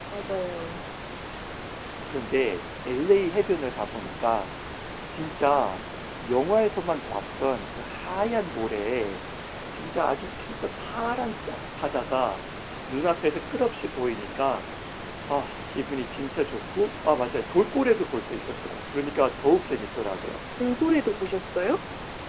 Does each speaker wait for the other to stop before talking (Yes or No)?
Yes